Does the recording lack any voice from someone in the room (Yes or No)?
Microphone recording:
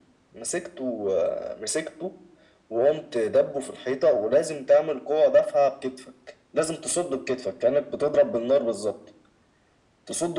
Yes